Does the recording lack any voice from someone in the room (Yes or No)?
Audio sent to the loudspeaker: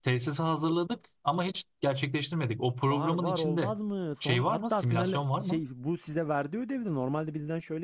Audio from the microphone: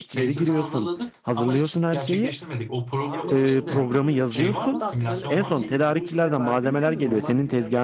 No